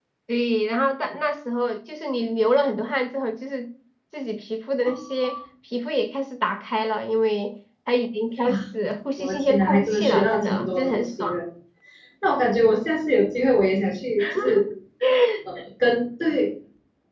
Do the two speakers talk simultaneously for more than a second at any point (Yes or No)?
Yes